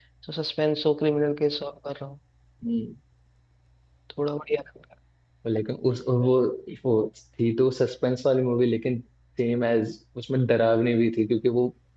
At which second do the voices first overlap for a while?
none

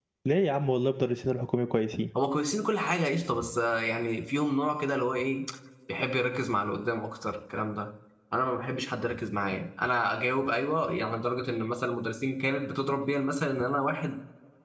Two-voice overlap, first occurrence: none

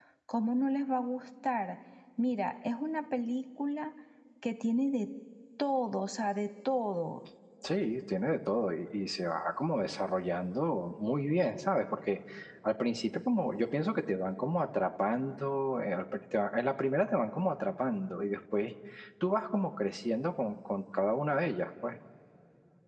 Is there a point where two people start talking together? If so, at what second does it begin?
none

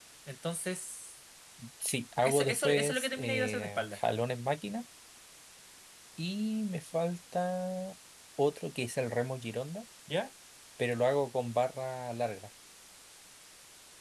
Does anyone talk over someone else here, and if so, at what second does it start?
2 s

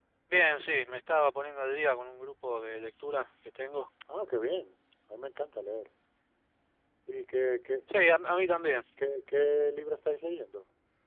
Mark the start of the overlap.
none

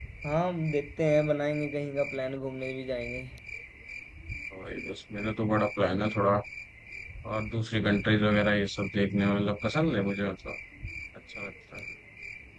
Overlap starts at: none

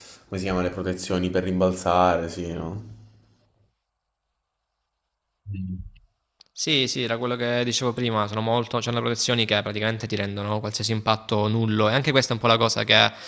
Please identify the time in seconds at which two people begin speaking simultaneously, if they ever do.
none

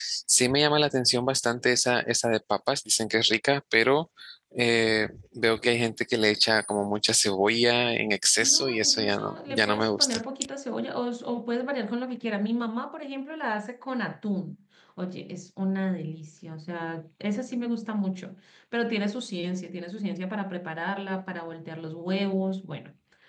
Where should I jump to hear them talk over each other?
8 s

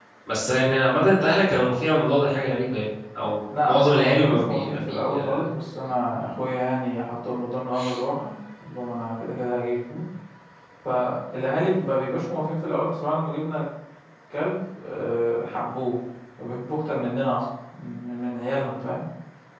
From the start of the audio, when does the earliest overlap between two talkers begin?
3 s

